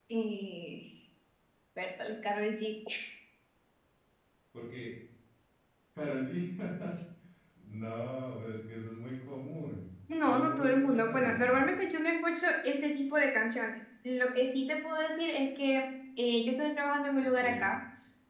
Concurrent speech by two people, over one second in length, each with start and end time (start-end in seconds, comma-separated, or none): 10.2-11.5